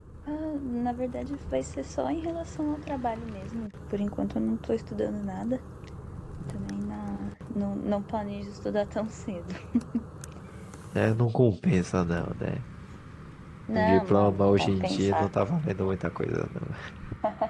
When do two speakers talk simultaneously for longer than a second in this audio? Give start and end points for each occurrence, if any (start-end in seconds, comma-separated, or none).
13.8-15.3